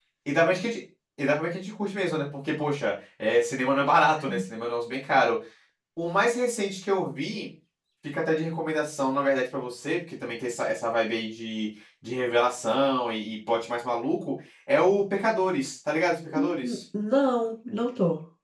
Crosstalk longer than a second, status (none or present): none